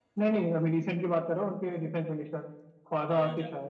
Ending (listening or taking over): taking over